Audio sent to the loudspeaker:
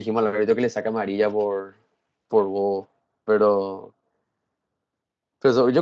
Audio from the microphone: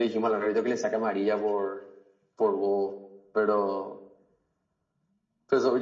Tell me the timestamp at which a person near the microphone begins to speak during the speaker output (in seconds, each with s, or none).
none